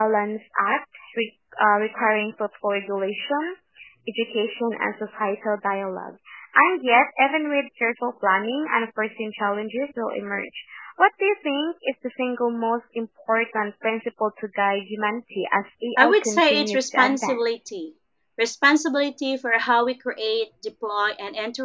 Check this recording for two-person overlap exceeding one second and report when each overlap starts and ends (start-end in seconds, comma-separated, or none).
16.0-17.4